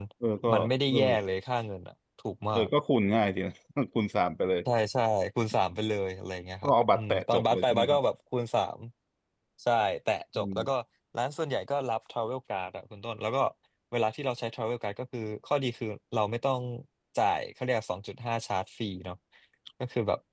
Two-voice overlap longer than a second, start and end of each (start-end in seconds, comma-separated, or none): 6.6-8.0